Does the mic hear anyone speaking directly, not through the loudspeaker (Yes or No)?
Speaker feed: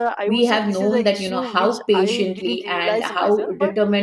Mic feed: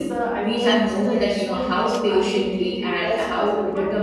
No